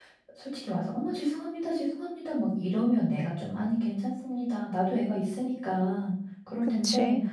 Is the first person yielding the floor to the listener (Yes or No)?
No